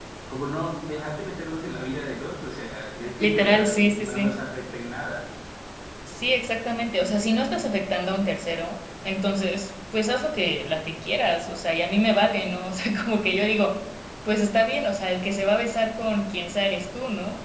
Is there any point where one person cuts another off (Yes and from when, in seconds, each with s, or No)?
Yes, from 3.1 s